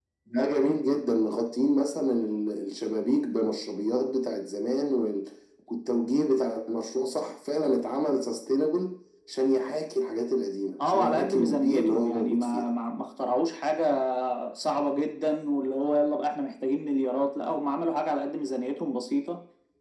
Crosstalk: present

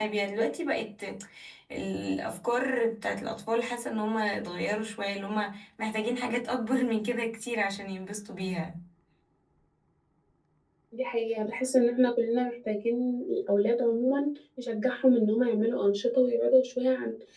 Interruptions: none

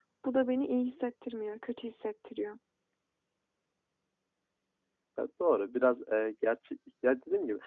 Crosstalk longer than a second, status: none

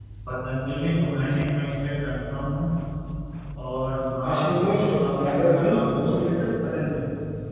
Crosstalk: present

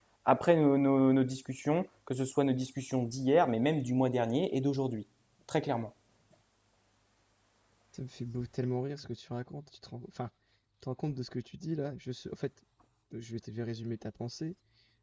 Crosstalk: none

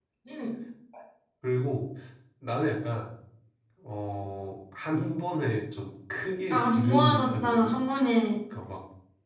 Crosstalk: present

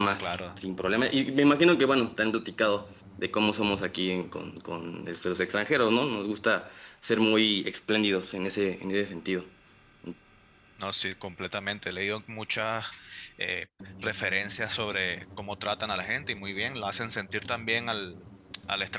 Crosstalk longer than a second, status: none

